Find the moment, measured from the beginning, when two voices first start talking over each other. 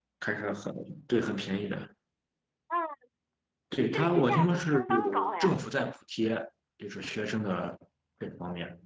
3.9 s

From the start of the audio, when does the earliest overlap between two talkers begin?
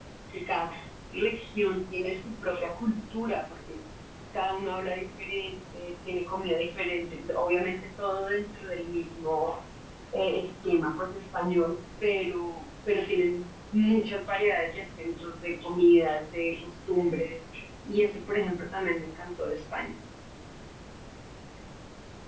none

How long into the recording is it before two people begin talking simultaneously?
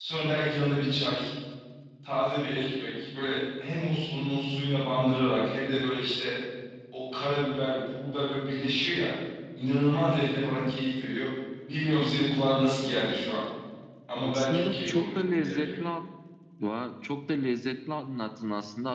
14.2 s

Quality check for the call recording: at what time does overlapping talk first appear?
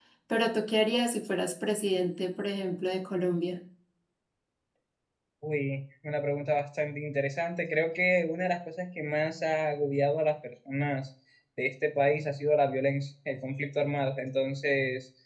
none

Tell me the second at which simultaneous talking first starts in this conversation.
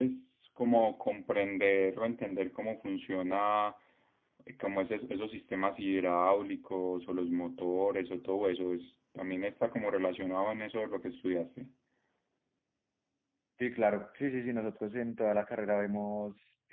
none

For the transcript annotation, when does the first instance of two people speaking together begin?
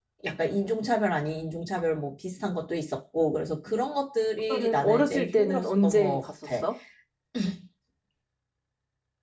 4.5 s

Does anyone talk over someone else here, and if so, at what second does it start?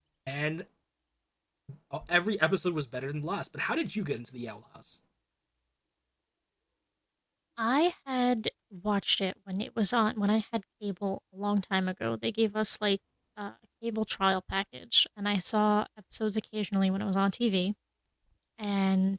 none

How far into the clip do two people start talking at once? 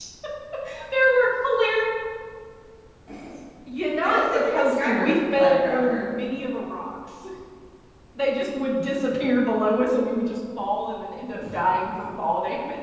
4.0 s

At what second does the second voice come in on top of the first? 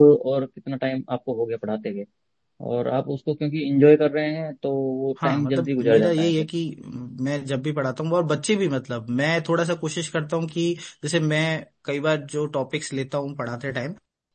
5.2 s

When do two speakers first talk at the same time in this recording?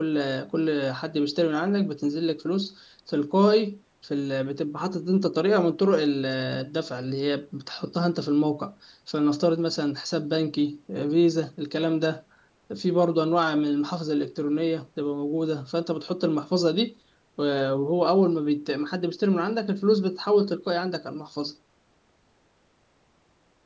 none

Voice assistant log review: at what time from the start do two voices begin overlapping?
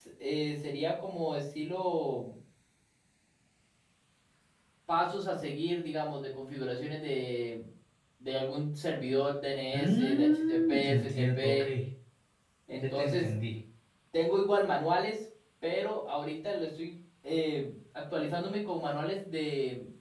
9.7 s

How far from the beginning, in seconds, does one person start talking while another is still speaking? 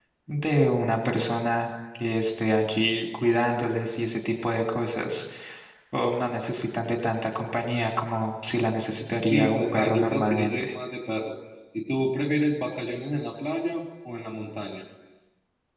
9.2 s

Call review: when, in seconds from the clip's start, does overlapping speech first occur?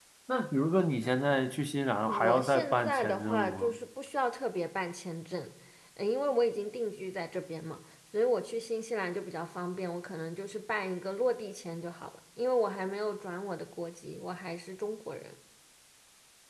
2.1 s

